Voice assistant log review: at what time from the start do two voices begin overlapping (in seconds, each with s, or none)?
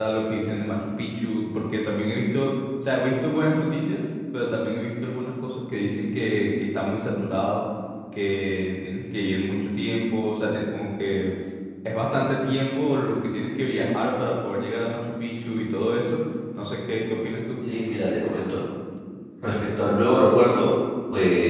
none